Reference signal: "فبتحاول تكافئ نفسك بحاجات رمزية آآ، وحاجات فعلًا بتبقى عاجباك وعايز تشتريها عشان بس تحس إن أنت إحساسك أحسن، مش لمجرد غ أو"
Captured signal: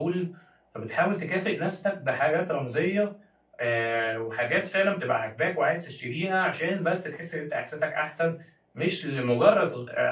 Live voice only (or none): none